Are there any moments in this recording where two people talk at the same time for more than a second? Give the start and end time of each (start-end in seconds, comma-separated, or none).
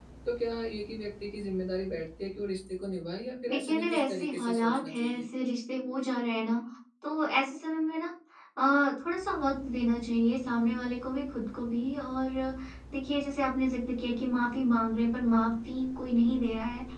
3.5-5.3